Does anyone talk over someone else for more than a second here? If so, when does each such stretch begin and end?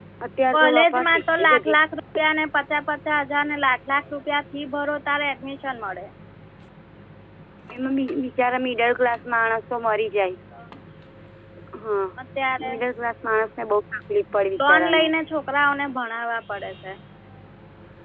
0.5-1.8

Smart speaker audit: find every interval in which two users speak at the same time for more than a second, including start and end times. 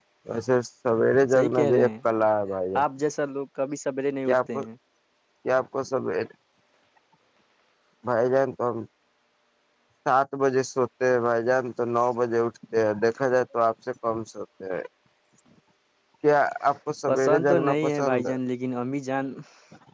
1.0-2.2, 17.1-18.4

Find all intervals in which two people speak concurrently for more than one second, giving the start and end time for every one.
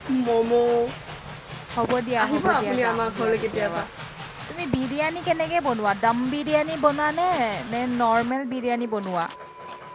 2.2-3.8

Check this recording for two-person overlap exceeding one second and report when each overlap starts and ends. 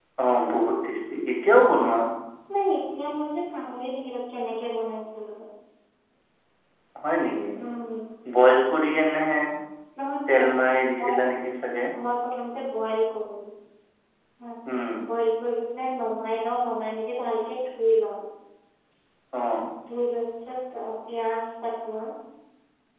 none

